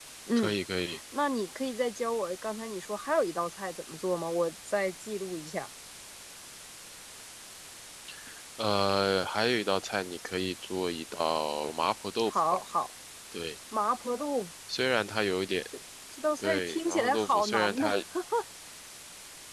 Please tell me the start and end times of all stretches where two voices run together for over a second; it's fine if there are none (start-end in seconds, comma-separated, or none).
16.4-17.9